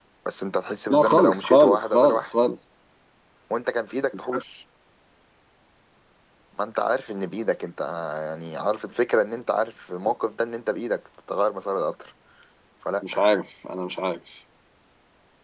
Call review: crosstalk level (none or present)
present